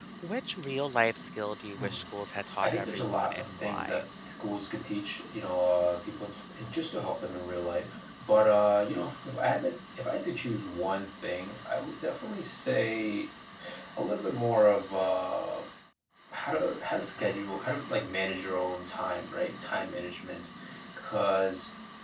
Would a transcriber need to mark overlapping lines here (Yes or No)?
Yes